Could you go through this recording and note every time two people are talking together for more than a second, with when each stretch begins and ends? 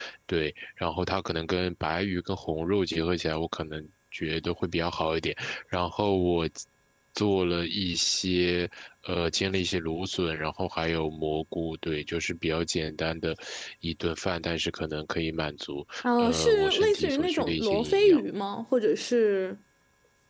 16.0-18.2

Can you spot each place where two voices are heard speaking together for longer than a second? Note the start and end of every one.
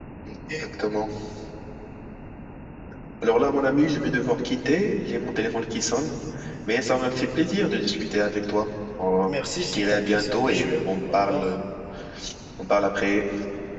9.3-11.5

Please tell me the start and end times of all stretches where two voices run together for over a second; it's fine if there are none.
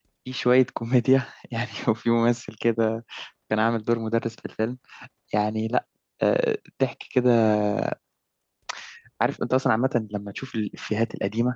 none

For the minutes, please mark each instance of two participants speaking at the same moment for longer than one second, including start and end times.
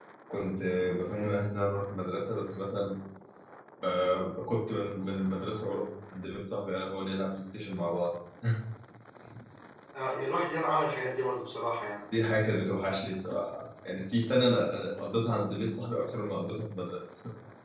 none

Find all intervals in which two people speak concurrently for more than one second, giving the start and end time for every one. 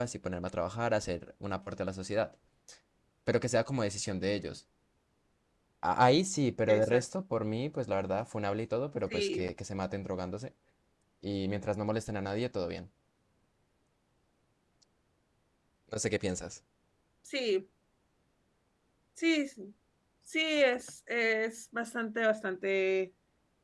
none

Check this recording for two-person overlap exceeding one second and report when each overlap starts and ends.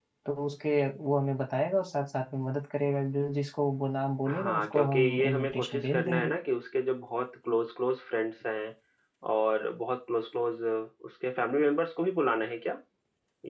4.3-6.3

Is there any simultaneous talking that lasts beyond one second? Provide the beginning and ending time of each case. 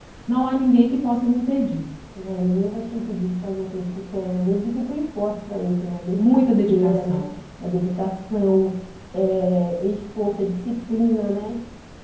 6.1-7.4

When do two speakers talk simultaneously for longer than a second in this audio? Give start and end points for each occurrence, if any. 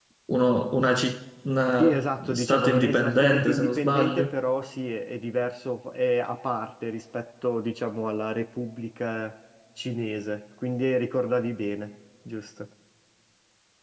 1.8-4.3

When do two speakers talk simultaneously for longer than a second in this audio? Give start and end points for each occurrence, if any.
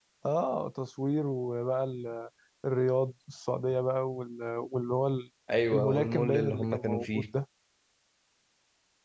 5.7-7.2

